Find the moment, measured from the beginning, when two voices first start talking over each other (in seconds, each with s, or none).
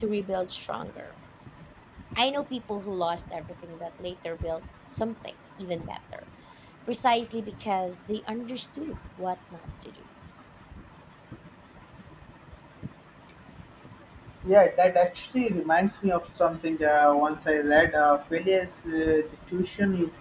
none